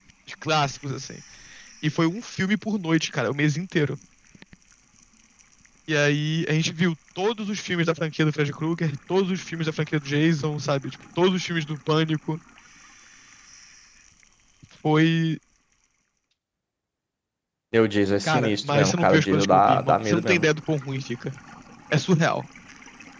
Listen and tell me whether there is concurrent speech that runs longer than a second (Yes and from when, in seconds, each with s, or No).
Yes, from 18.2 s